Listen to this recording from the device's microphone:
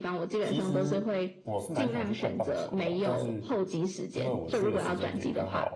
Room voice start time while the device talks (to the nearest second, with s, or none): 0 s